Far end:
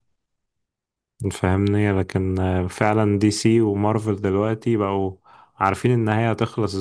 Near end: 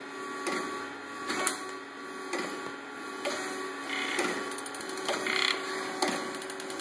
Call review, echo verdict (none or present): none